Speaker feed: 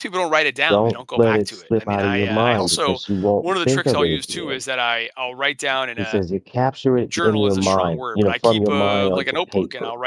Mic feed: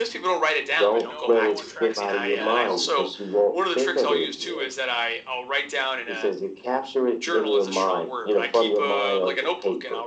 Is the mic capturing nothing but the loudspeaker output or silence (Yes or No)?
No